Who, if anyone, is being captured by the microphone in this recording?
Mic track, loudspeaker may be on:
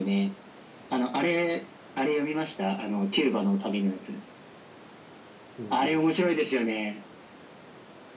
both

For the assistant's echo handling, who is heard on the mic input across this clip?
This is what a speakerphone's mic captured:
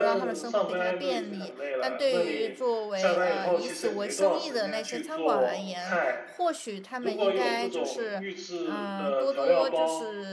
both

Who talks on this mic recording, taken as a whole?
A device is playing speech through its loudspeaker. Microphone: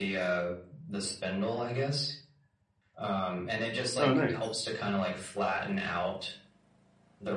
both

